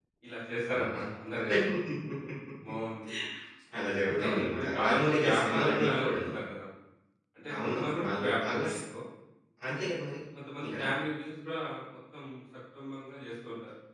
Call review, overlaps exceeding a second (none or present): present